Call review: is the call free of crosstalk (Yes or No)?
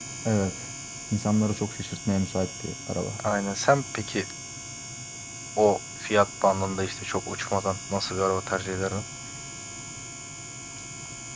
Yes